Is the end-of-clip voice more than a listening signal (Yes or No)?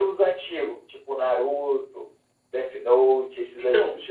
Yes